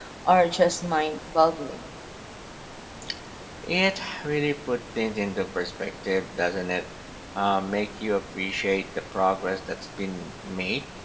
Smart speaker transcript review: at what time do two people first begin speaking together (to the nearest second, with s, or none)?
none